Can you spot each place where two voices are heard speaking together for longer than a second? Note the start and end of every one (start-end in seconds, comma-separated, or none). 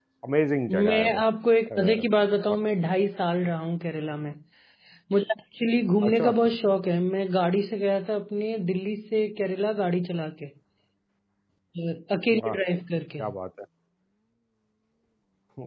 none